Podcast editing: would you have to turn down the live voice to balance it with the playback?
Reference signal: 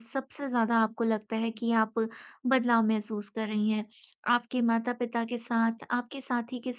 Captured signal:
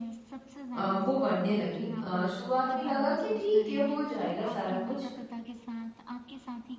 Yes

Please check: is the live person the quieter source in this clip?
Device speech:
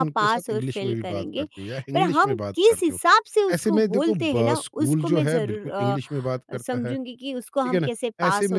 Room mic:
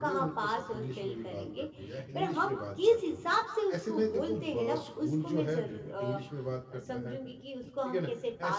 Yes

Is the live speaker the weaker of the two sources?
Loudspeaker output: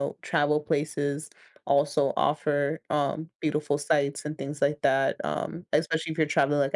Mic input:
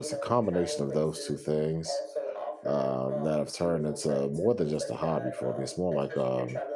No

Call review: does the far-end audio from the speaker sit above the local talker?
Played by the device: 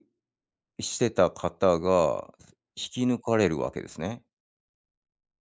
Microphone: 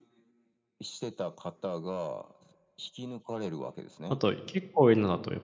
No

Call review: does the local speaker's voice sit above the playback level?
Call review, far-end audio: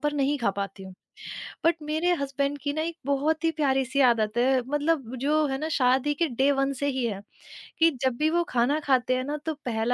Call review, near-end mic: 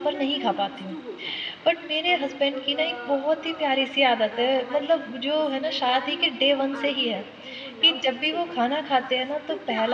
No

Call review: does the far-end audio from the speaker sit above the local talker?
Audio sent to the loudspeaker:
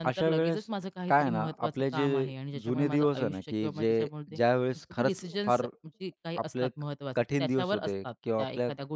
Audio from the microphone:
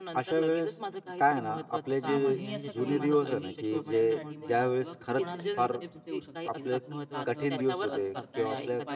Yes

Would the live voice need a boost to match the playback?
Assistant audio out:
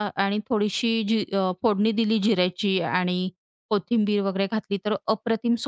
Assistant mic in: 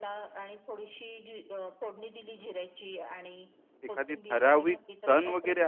No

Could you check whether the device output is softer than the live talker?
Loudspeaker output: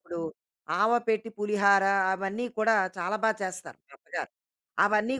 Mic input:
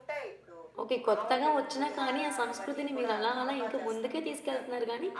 Yes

